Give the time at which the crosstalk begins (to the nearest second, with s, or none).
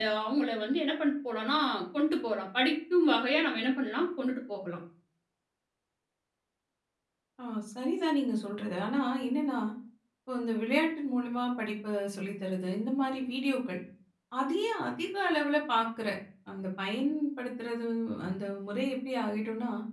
none